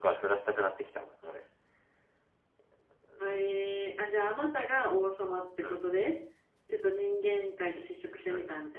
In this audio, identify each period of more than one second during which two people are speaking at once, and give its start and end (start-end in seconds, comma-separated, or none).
none